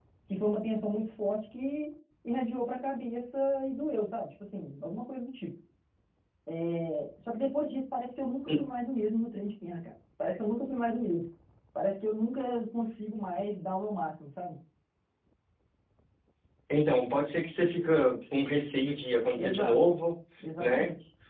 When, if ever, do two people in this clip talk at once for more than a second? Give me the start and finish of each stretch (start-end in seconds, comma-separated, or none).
none